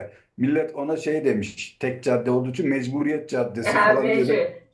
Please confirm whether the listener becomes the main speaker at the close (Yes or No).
Yes